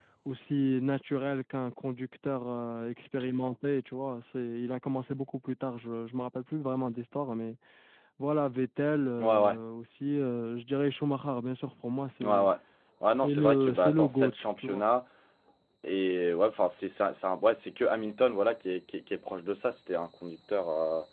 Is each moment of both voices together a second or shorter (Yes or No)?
No